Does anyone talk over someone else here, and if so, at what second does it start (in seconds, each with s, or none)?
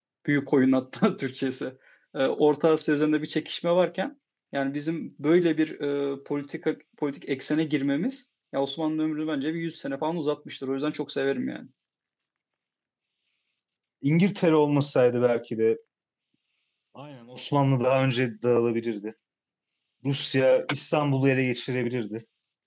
none